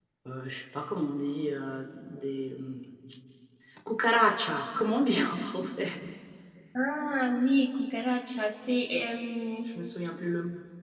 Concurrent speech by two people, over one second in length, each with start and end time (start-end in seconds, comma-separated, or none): none